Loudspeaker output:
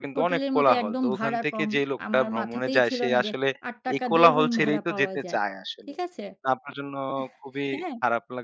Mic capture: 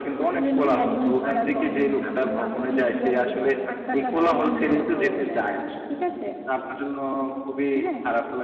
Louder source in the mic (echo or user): echo